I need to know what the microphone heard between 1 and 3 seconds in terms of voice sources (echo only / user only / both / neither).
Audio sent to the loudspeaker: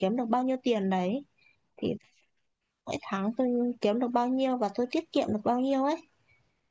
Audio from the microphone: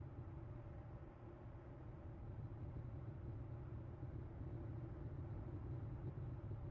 neither